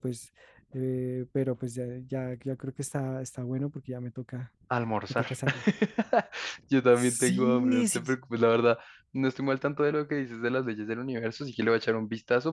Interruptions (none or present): present